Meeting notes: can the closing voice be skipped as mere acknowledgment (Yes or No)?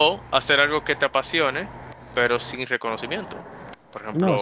No